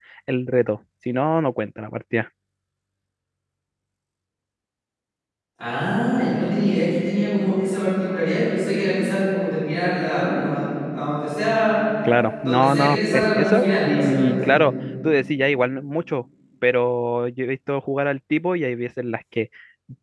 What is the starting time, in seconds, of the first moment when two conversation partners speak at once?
12.4 s

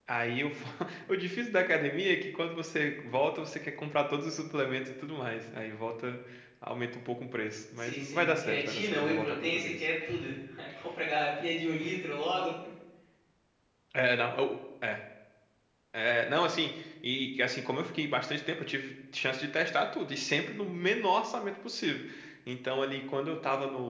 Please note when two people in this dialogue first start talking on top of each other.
7.8 s

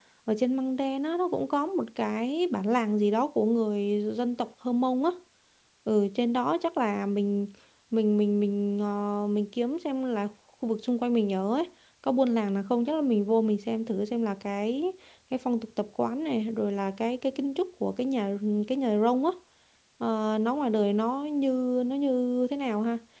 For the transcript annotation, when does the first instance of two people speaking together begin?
none

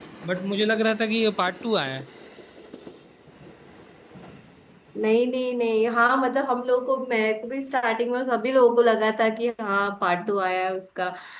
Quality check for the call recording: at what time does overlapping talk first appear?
none

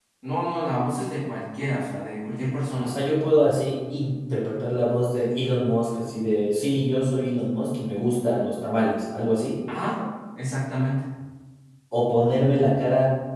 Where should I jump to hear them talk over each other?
none

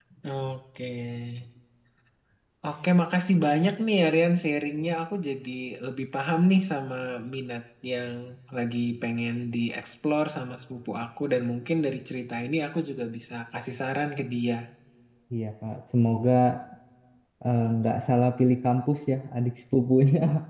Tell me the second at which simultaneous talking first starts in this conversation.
none

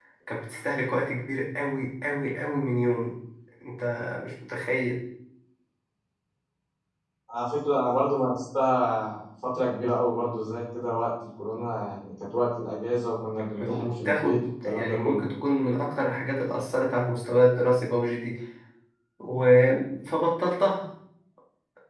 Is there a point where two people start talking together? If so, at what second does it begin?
13.5 s

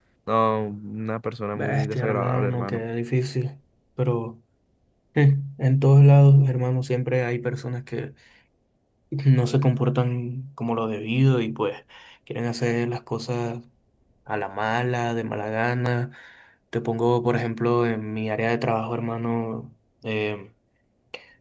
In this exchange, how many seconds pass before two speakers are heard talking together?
1.6 s

